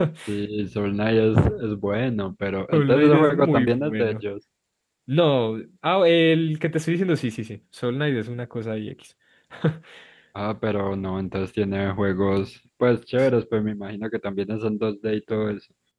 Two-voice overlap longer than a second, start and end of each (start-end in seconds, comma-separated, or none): 2.7-4.1